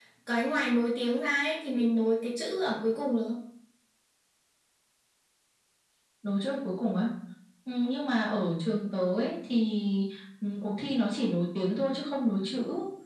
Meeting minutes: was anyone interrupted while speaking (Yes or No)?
No